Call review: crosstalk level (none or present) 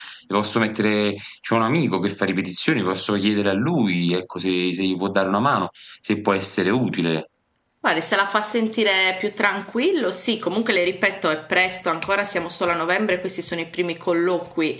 none